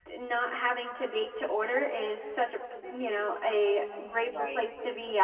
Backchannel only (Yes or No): Yes